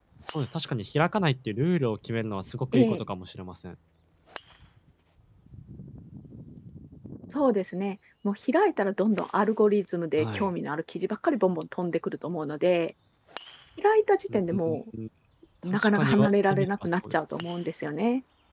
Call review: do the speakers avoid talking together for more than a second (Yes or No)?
No